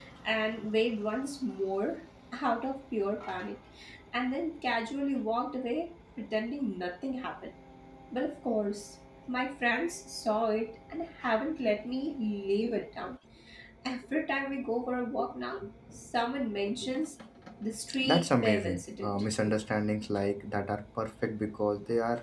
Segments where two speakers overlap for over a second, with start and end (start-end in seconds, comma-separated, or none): 18.1-19.2